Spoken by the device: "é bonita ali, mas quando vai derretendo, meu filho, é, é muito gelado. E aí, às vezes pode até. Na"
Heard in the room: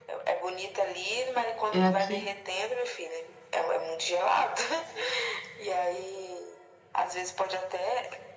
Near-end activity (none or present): present